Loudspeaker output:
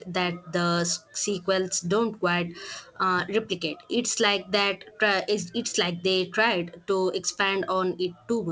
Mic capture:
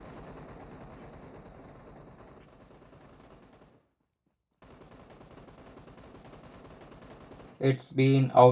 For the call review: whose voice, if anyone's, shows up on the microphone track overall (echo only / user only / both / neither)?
user only